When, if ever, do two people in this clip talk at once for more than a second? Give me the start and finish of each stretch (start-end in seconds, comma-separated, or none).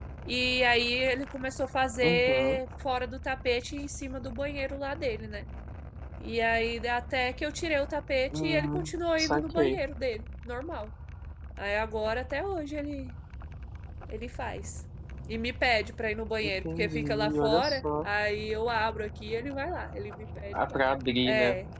8.3-9.8, 16.4-18.1